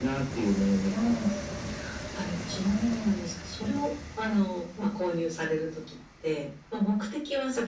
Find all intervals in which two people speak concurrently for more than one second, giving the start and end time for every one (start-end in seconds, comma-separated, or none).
none